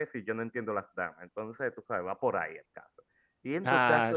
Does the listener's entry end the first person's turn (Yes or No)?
No